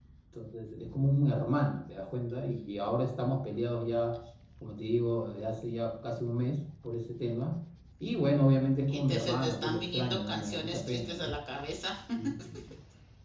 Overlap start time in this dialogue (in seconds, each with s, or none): 8.9 s